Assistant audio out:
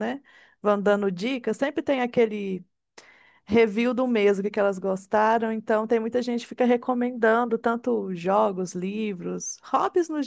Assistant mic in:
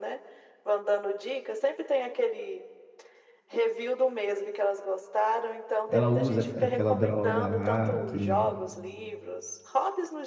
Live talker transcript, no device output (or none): ela usa aquela droga lá, aquele,